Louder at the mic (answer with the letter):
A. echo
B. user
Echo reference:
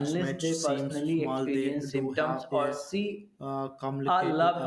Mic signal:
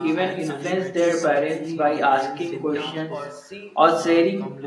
B